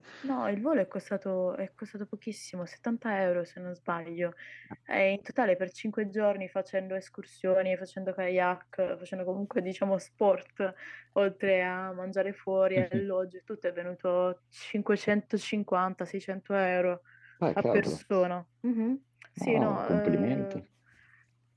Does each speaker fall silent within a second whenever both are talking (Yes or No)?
No